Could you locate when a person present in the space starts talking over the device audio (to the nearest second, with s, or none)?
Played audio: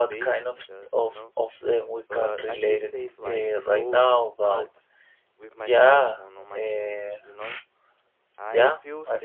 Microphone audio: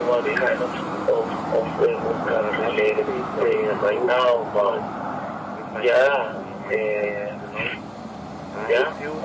none